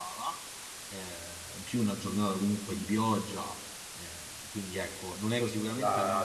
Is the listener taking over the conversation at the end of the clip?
Yes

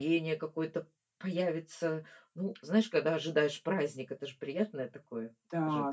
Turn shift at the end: Yes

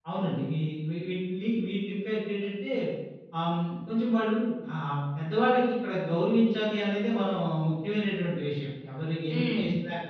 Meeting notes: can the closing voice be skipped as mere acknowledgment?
Yes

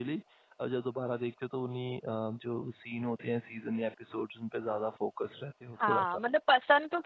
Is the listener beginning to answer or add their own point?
Yes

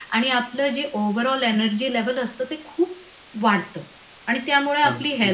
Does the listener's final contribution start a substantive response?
No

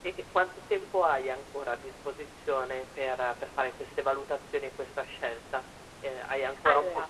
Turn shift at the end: No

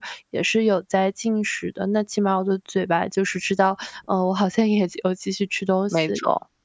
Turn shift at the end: Yes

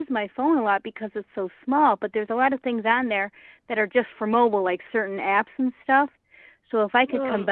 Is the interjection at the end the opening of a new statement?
No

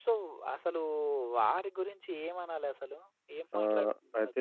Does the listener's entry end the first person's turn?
Yes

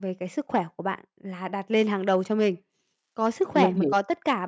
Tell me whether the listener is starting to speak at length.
No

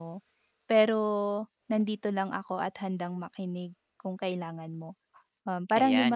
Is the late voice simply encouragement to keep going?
No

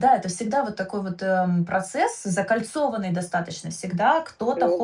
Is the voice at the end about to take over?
No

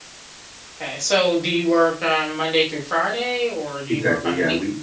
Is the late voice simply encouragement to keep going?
No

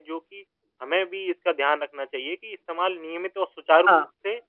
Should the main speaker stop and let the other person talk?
No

